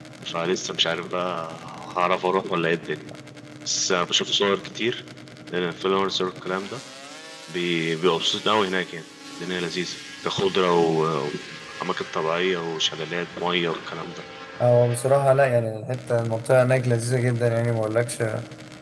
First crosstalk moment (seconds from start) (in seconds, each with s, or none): none